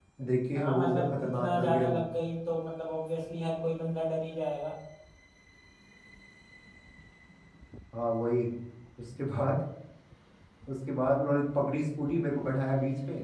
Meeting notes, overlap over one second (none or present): present